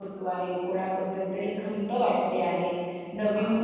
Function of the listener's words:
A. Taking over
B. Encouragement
B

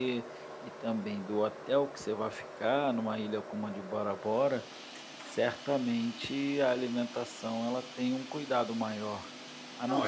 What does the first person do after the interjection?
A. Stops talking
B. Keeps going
B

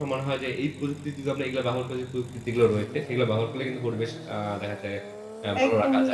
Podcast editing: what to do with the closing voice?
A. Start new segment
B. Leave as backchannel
A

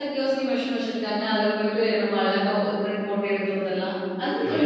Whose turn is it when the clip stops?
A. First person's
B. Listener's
B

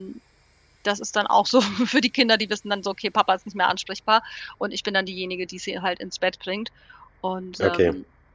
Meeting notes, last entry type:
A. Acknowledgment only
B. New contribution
A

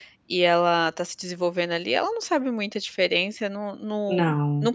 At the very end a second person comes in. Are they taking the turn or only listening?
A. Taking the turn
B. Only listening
B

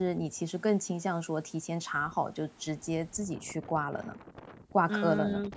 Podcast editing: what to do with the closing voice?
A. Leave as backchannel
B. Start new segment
B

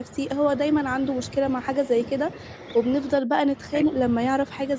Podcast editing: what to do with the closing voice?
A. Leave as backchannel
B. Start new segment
A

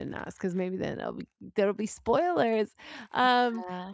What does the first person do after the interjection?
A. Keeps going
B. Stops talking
A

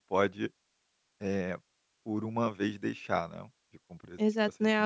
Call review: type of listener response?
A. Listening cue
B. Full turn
B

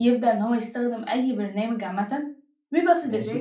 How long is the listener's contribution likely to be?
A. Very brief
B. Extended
A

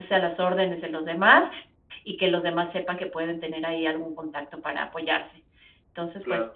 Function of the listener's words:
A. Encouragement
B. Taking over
A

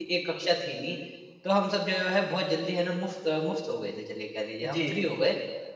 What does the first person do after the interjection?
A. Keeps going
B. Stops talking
A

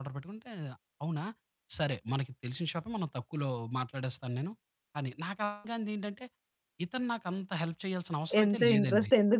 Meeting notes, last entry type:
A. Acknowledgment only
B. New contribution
B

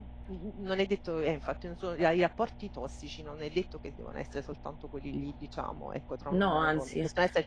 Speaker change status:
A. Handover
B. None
B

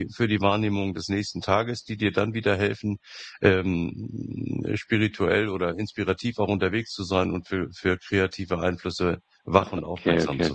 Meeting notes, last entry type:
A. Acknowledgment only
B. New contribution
B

